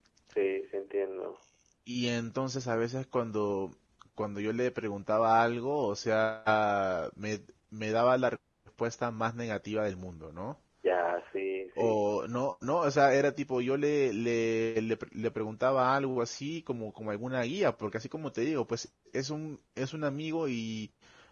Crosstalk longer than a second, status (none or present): none